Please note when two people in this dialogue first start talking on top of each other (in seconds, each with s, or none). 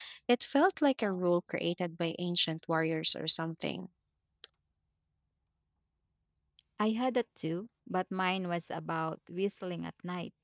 none